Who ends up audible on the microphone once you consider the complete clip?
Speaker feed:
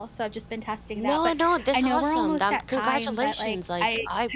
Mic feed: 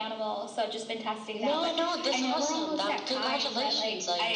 echo only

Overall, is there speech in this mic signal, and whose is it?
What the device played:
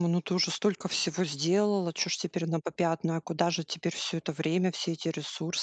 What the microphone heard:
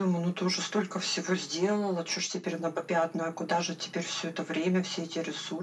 echo only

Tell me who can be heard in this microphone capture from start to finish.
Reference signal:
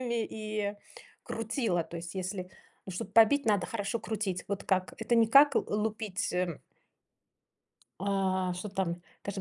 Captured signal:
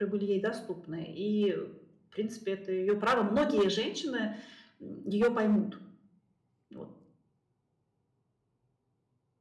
user only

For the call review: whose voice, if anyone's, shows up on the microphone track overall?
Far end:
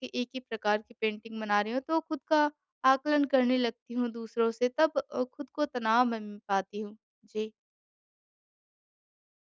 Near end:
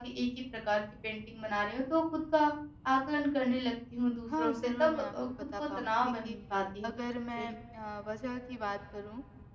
both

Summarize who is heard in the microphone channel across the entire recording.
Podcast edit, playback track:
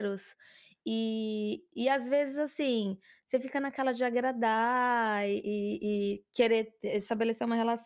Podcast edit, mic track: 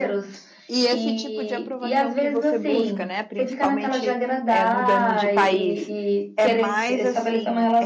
both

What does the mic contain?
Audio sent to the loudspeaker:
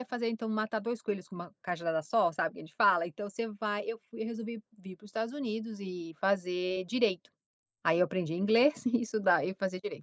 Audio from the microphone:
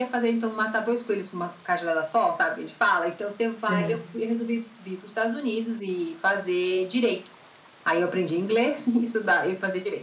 both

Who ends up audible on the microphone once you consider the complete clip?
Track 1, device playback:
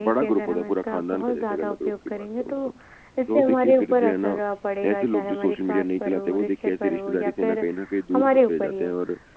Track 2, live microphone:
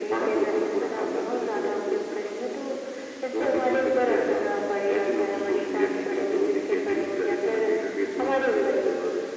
echo only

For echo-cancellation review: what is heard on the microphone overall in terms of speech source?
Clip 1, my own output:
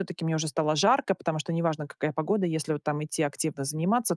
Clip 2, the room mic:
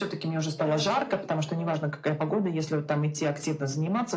both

